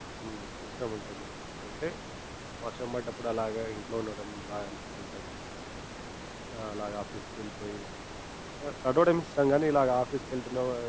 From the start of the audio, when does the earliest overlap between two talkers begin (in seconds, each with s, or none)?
none